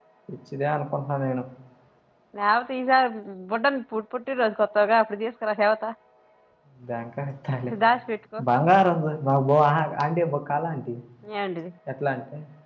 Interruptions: none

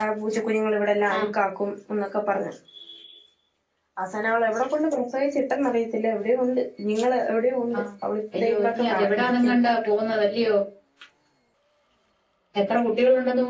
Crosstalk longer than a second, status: present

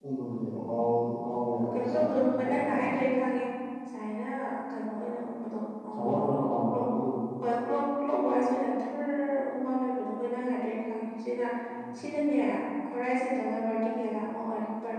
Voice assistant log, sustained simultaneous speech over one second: present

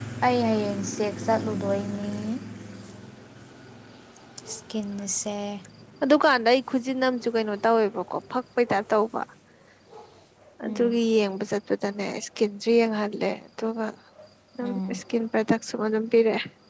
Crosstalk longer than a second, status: none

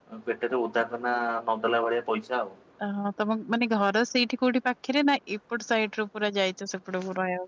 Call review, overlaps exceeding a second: none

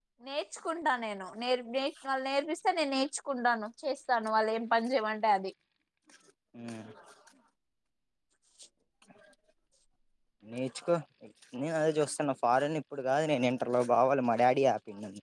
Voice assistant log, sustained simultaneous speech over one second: none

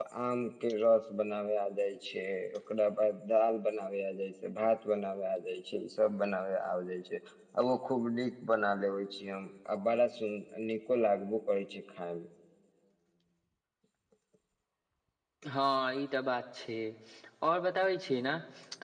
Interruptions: none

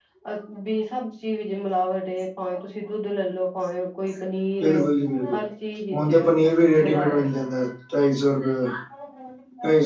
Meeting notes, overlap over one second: none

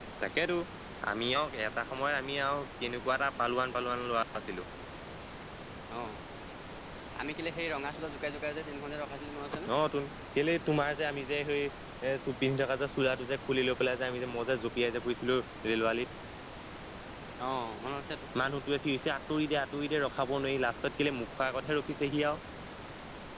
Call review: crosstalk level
none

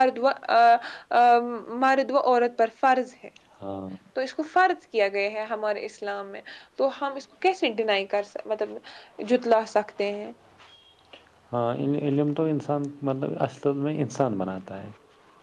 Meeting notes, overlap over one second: none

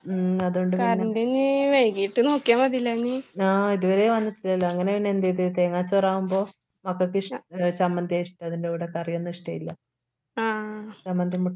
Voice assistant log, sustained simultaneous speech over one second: none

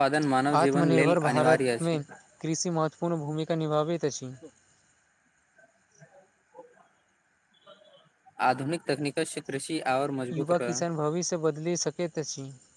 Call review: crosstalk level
present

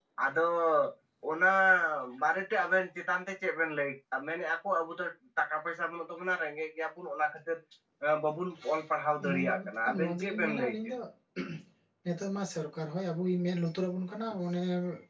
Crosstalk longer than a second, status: present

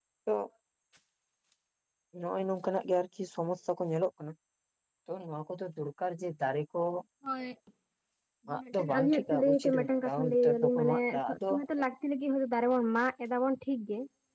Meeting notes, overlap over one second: present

